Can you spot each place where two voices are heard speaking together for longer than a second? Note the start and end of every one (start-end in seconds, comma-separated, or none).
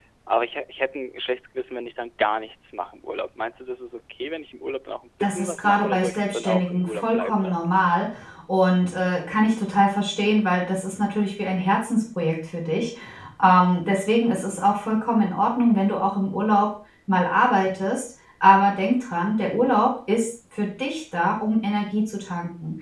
5.2-7.7